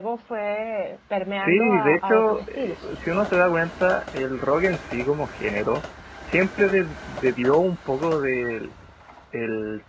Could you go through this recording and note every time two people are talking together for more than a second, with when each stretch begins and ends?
1.4-2.8

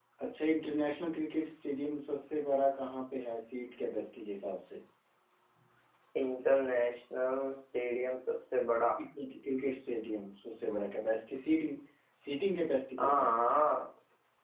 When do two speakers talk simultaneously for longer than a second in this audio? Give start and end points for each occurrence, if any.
none

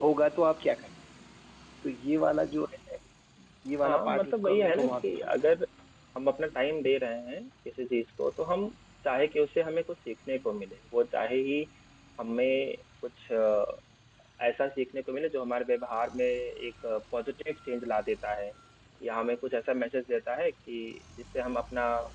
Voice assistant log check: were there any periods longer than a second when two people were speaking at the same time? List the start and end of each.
3.8-5.4

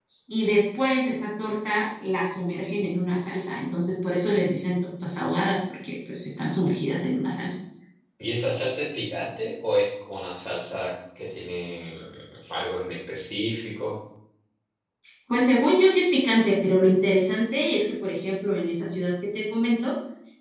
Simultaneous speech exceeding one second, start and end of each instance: none

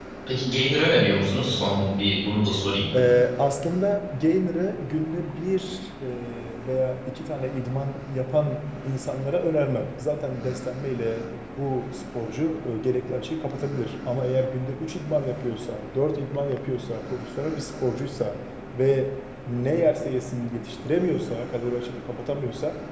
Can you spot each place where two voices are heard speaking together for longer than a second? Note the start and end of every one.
none

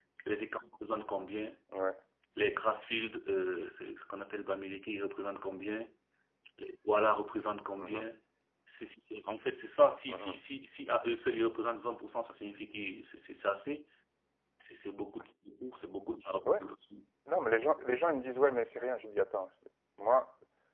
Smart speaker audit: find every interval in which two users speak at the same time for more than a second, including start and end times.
none

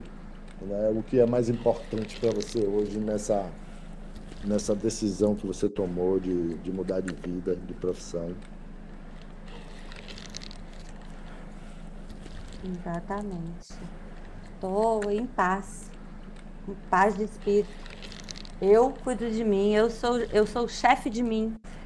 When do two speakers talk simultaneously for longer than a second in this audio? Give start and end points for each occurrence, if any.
none

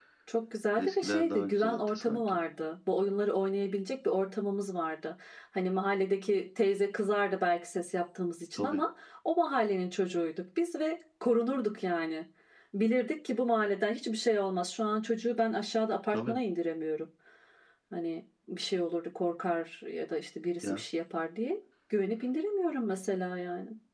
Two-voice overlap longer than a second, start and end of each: 0.8-2.4

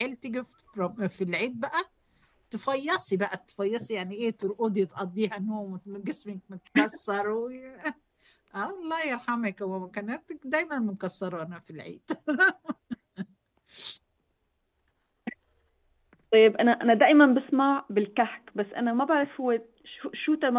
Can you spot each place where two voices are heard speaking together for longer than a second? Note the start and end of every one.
none

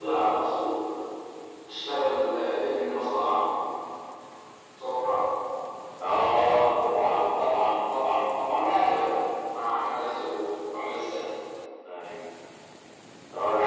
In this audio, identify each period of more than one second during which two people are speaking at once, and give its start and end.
none

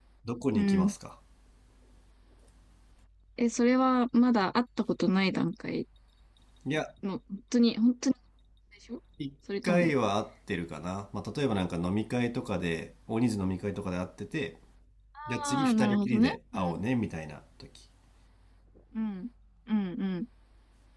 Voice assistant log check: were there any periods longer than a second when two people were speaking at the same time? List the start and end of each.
15.5-16.8

